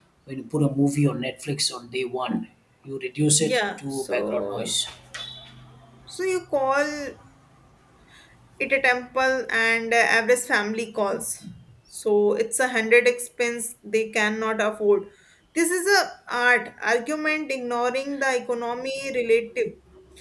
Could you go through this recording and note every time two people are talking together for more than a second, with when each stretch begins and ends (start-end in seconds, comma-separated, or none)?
3.4-4.7